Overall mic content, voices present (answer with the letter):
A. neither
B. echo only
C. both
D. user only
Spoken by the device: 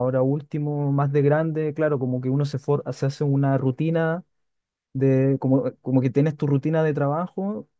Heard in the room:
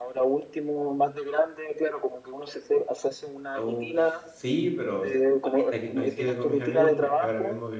C